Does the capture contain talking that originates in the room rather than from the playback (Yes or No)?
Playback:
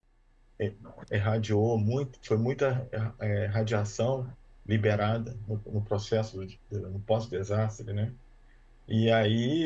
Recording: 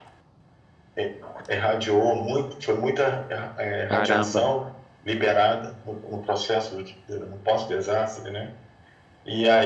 Yes